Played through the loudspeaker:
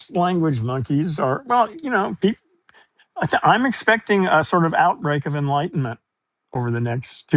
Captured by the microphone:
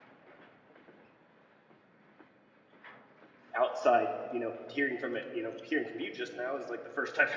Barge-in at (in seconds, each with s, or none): 3.5 s